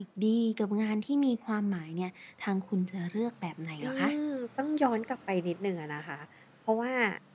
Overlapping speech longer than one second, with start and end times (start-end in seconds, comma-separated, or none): none